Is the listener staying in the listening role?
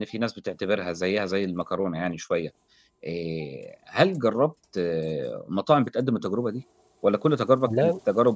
Yes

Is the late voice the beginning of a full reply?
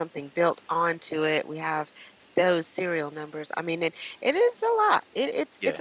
No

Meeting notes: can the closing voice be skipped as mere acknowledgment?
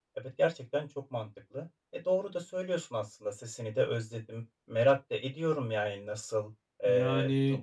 Yes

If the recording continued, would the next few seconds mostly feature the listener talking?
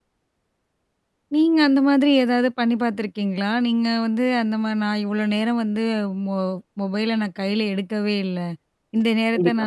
No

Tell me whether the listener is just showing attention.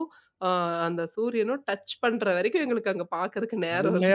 No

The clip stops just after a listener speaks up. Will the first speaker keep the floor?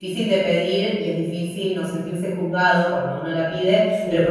Yes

